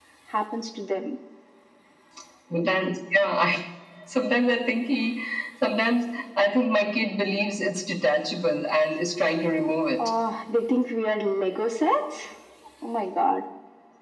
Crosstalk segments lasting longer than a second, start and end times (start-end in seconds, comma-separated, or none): none